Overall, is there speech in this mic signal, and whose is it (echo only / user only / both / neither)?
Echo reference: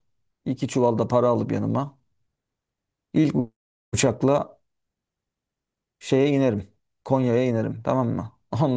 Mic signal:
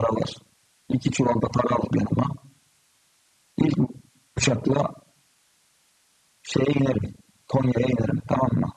echo only